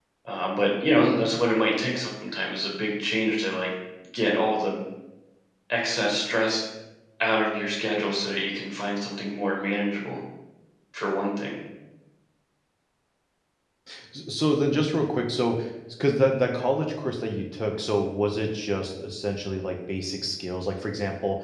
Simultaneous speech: No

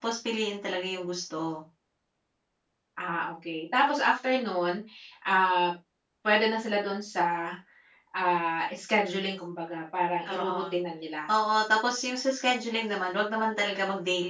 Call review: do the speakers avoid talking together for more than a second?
Yes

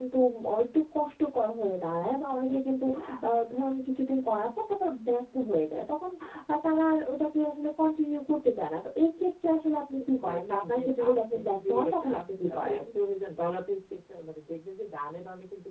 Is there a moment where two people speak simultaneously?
Yes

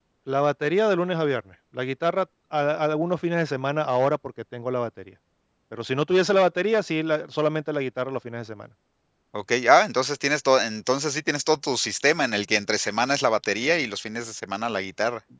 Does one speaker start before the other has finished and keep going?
No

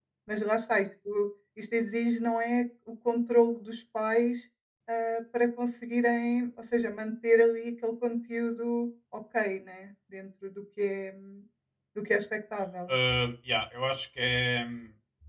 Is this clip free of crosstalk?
Yes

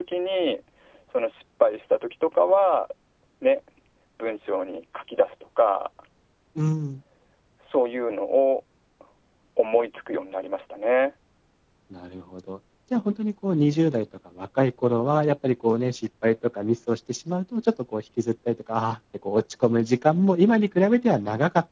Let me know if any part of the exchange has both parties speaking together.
No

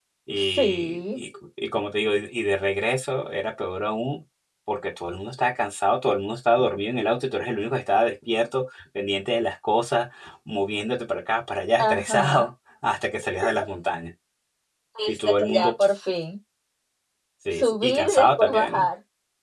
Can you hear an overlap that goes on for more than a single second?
Yes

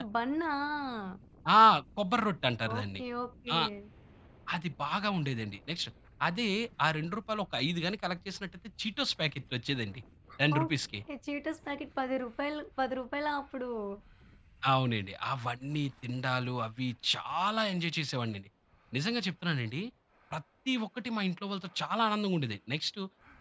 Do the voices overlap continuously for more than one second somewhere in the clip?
No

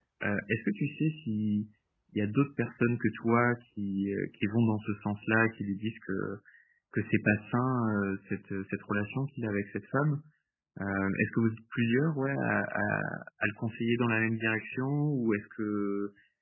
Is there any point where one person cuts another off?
No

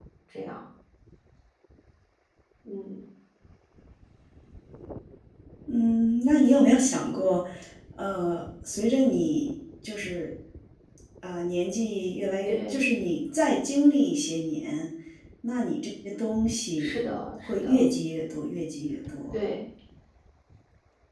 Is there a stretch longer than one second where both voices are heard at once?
No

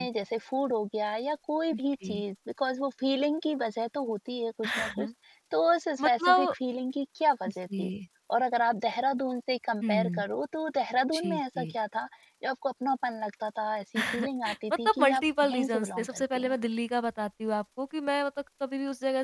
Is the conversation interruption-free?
No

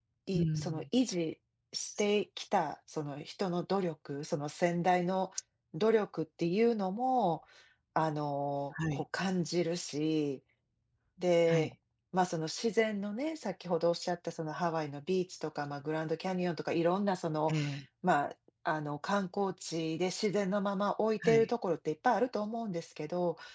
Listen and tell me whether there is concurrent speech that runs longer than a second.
No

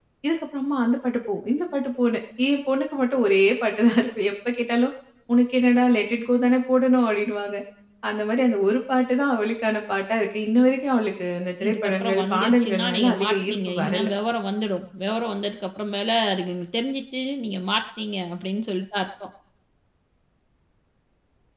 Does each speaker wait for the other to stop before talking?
No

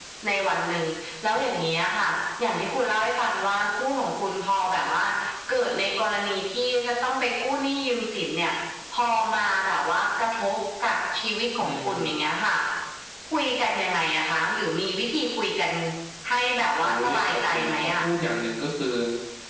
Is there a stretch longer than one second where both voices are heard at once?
Yes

